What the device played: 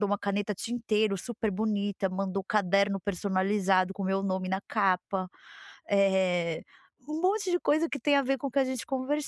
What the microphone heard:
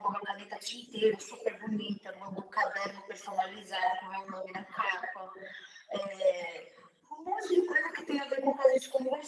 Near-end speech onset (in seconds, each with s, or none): none